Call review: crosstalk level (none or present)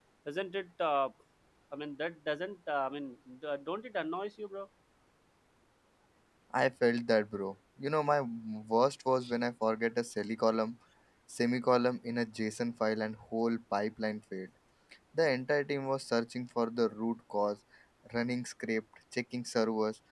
none